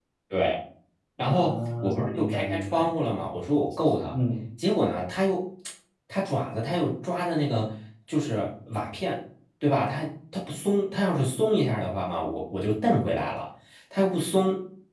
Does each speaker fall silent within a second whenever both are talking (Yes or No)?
No